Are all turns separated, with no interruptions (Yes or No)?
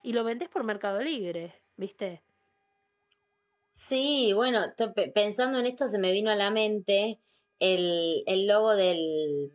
Yes